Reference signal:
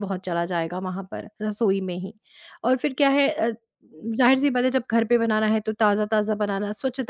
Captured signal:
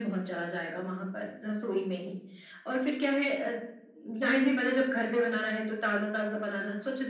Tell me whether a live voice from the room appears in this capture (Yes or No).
No